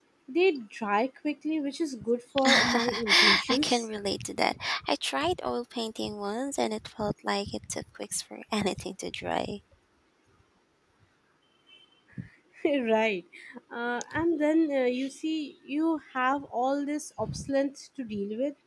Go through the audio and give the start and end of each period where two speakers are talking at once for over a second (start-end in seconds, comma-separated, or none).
2.5-3.9